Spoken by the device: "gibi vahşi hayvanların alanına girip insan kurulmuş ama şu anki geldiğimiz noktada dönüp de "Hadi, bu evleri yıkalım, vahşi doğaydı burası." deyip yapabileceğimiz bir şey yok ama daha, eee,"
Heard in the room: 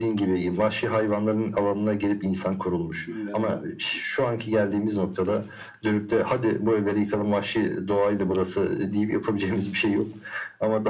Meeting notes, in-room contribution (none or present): present